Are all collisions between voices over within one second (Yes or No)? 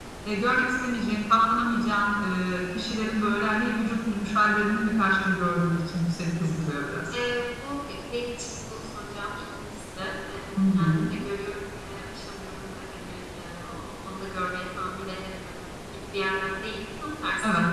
Yes